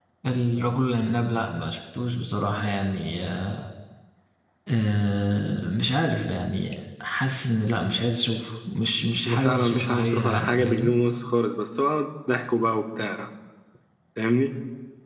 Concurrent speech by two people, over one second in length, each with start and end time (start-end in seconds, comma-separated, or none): 9.2-10.9